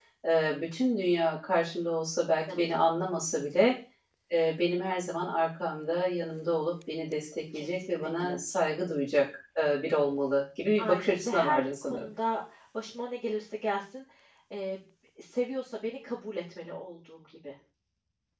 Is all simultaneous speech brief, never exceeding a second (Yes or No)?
No